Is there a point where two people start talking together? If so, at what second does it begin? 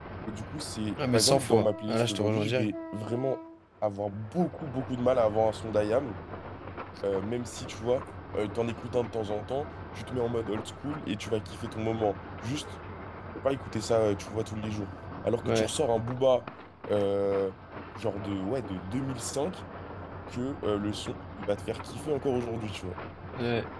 1.0 s

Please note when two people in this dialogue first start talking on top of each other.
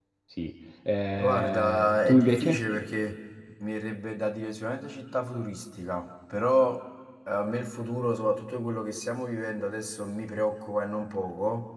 1.2 s

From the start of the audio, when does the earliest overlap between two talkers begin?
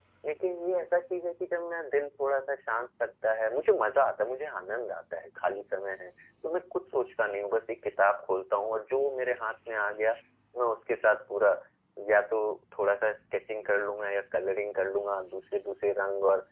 none

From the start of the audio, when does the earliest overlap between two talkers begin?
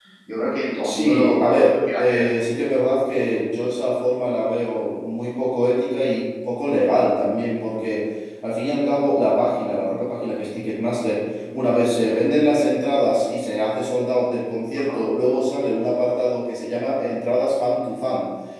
0.8 s

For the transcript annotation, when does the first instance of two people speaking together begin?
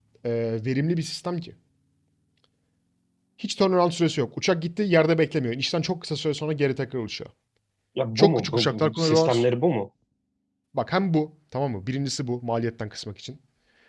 8.2 s

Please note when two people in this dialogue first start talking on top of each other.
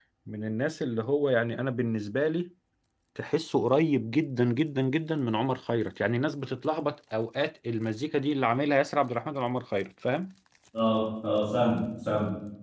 none

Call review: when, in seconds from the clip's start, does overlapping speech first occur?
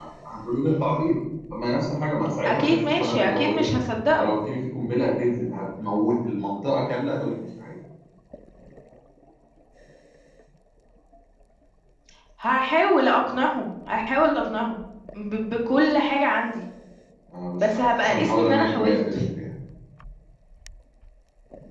2.5 s

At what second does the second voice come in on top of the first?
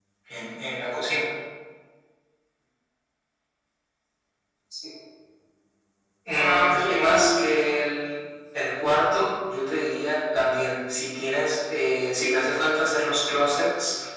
6.3 s

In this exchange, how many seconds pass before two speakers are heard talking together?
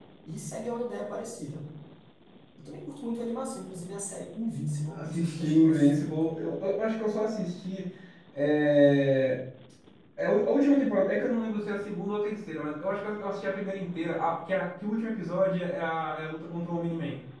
4.9 s

